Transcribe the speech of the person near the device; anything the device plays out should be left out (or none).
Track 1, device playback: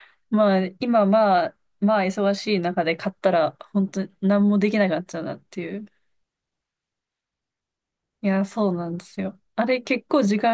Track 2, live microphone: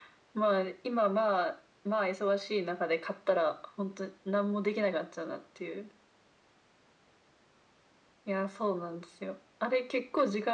none